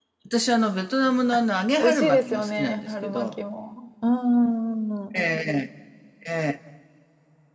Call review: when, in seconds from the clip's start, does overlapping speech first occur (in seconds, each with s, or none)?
1.8 s